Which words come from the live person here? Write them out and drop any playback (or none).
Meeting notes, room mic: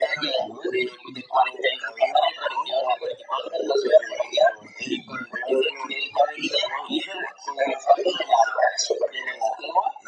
none